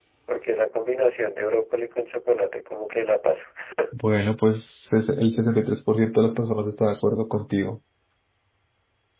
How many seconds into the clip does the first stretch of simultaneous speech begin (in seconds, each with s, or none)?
none